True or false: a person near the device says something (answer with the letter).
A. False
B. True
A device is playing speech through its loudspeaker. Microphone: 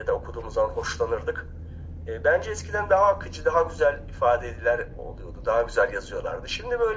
A